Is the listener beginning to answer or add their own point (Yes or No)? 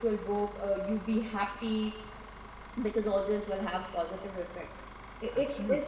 No